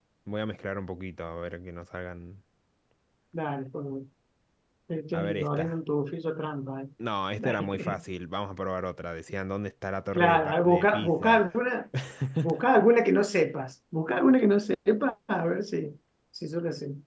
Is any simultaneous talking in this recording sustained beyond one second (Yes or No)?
Yes